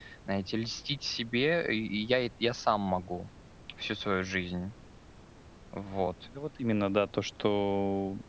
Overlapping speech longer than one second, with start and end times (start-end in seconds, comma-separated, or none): none